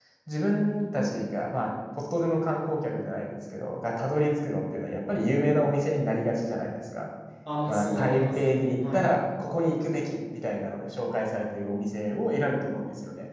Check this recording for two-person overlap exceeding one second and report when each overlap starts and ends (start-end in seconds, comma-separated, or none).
7.7-9.1